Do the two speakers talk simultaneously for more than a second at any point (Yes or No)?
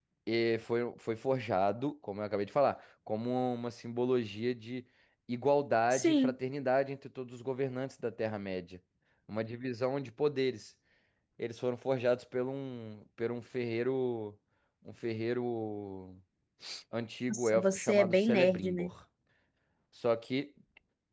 Yes